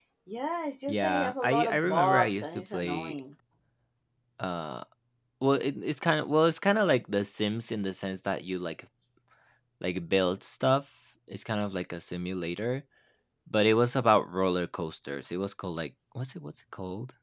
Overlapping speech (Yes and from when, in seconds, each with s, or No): Yes, from 0.8 s